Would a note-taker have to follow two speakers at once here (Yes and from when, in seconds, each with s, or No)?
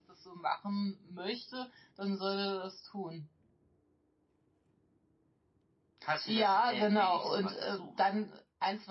Yes, from 6.2 s